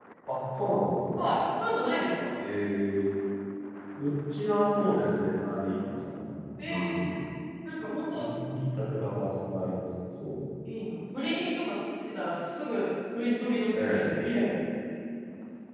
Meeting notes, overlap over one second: none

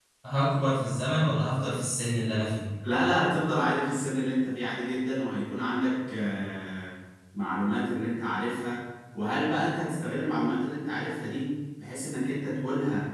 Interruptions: none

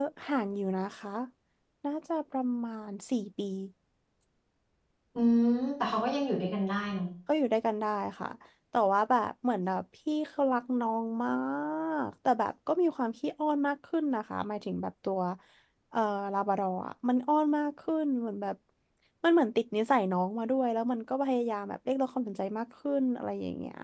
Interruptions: none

